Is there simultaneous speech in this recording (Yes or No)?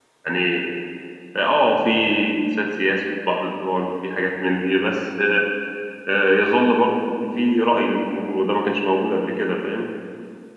No